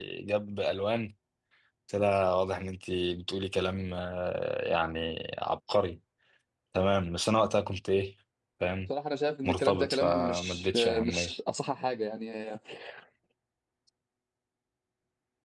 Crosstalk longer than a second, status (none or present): present